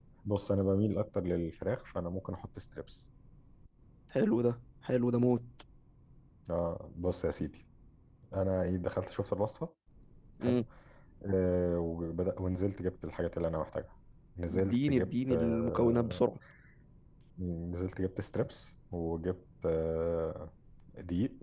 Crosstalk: present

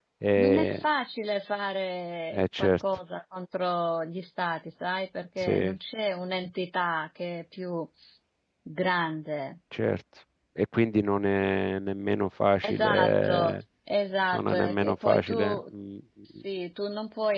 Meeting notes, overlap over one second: present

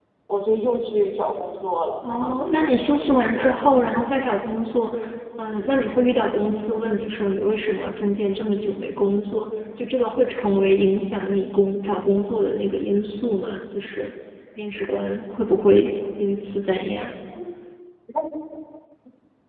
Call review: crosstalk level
present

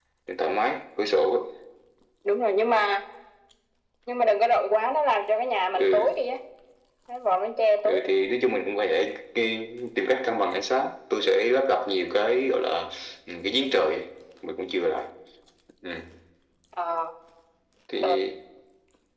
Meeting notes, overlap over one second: none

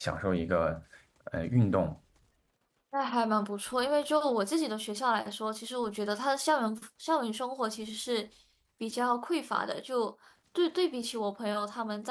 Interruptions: none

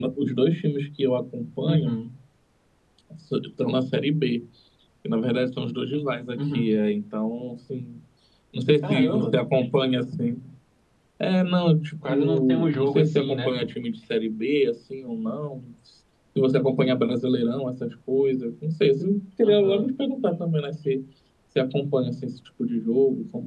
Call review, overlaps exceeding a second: present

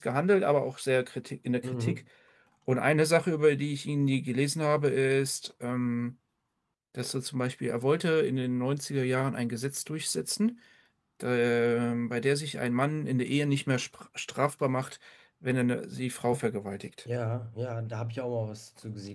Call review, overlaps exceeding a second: none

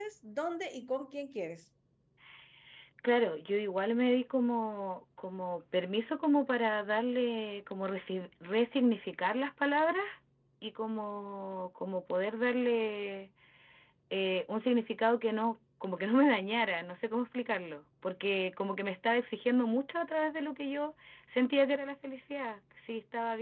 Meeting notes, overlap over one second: none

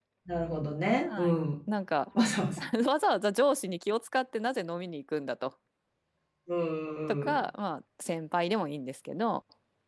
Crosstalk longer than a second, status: none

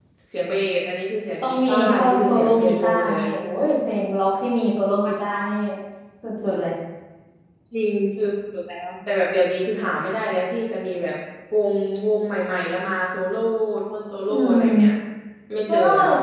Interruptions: present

